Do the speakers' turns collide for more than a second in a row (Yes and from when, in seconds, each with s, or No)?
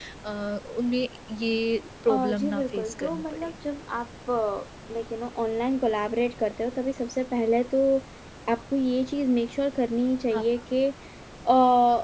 Yes, from 2.1 s